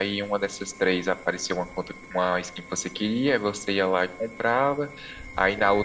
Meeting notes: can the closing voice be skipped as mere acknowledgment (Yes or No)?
Yes